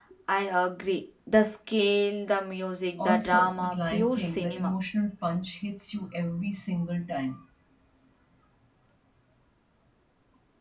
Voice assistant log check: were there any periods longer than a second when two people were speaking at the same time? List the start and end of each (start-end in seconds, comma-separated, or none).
3.0-4.7